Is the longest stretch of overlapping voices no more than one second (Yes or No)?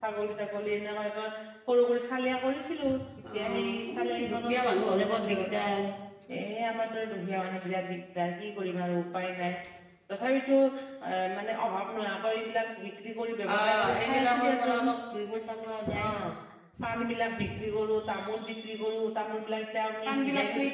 No